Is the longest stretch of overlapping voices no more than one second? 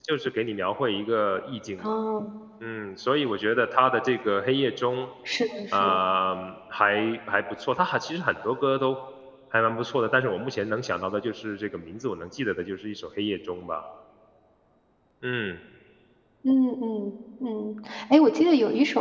Yes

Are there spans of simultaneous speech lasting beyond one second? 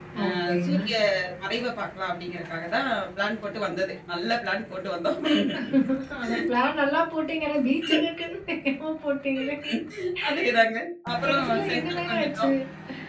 Yes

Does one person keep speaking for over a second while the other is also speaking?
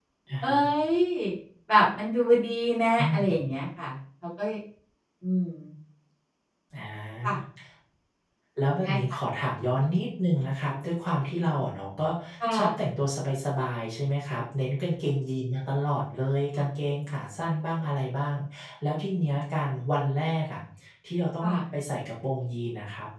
No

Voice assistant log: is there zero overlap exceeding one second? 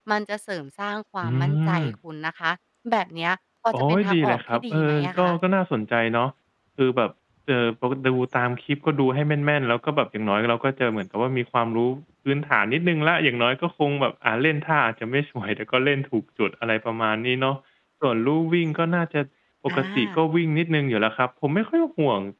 No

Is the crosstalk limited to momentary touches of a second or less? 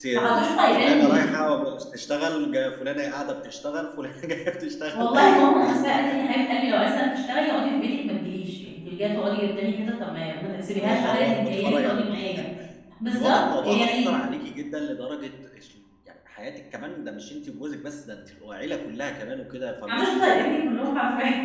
No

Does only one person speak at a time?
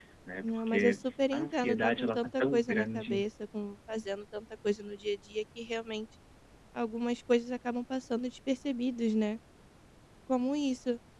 No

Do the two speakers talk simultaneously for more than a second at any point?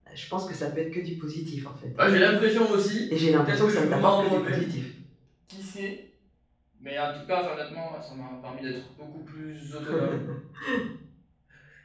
Yes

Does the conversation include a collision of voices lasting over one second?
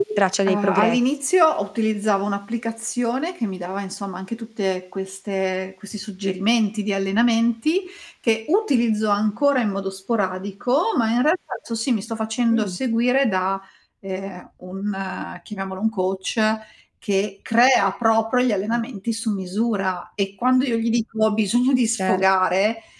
No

